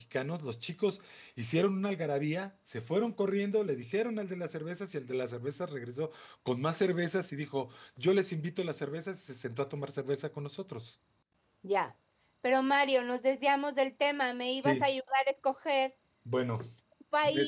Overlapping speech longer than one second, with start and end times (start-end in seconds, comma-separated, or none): none